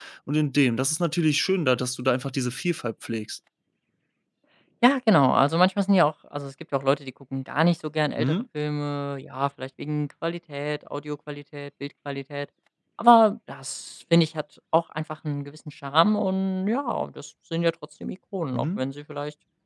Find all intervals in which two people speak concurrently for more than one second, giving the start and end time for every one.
none

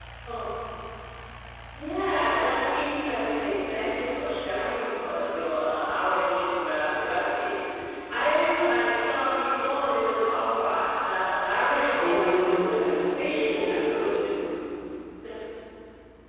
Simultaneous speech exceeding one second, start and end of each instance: 12.0-13.8

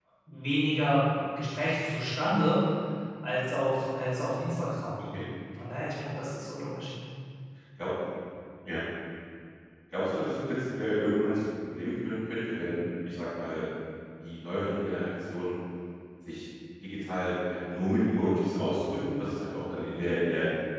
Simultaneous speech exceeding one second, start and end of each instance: none

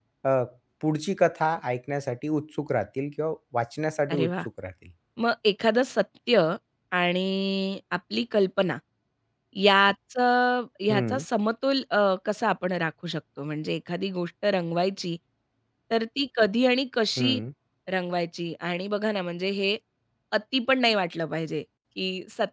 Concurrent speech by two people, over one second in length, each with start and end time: none

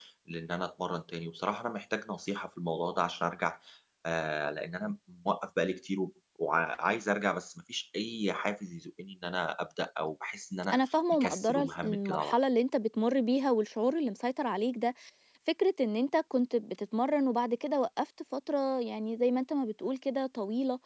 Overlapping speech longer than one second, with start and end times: 10.7-12.3

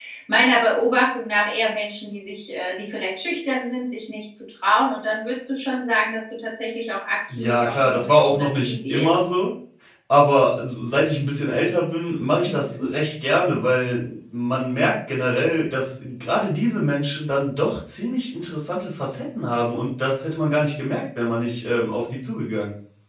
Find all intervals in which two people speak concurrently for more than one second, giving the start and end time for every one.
7.3-9.1

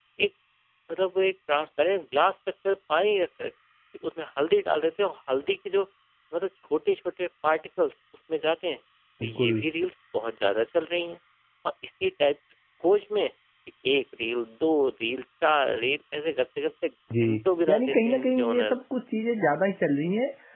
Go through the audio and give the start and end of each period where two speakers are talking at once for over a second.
17.2-18.8

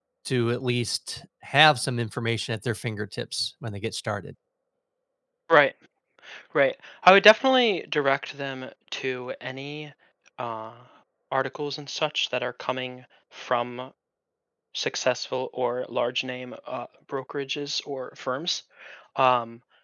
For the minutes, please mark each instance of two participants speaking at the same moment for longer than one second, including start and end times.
none

